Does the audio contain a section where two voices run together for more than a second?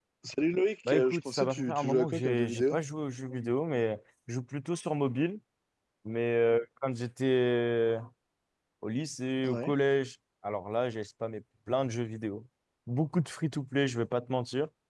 Yes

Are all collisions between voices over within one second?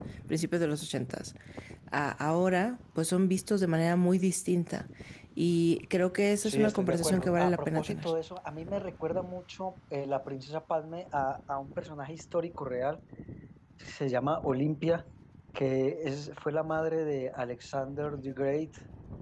No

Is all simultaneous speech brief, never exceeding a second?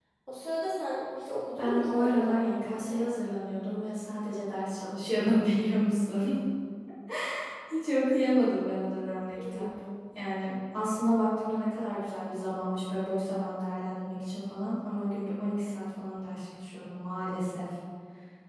No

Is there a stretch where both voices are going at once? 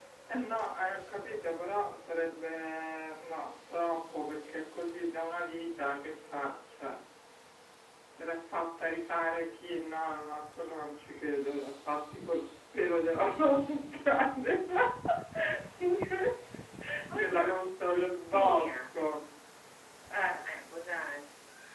Yes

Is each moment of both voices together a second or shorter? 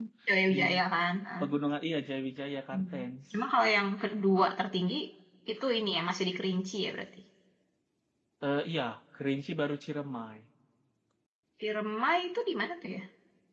Yes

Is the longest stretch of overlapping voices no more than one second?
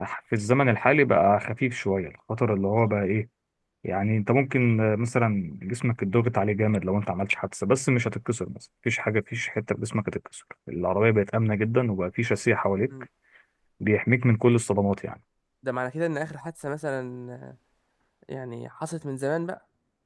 Yes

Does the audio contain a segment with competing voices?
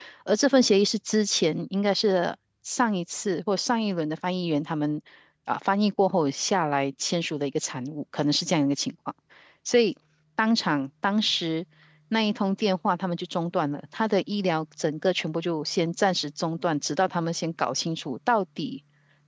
No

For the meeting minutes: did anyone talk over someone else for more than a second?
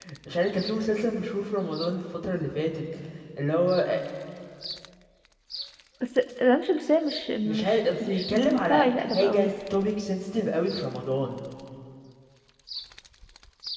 Yes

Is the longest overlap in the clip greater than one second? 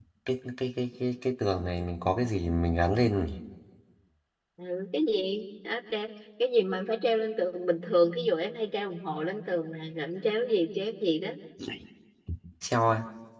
No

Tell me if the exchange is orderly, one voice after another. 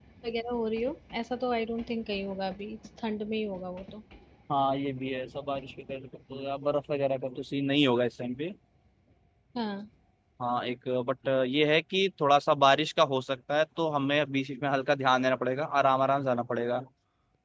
Yes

